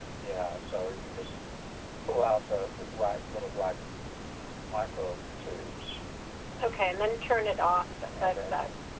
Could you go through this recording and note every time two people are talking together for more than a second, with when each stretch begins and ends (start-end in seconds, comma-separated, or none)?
none